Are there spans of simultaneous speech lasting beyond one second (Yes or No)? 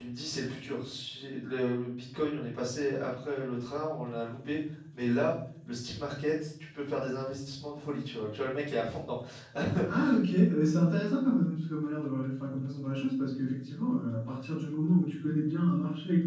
No